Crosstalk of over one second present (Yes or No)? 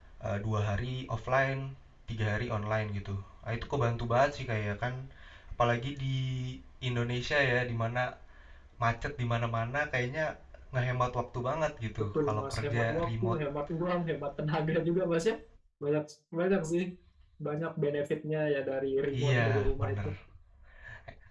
Yes